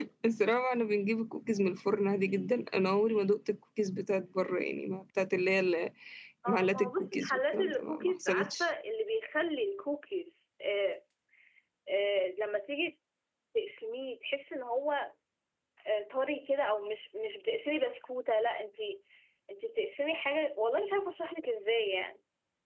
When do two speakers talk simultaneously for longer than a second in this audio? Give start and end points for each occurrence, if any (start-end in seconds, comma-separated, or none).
6.5-8.6